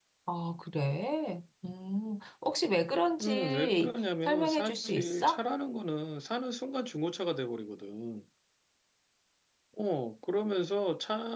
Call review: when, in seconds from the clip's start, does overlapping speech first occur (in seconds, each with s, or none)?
3.2 s